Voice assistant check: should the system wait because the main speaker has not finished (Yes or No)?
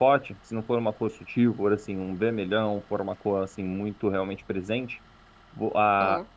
Yes